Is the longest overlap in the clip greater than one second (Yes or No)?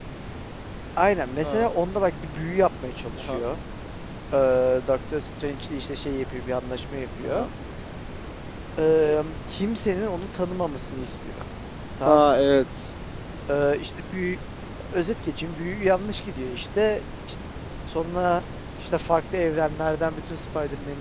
No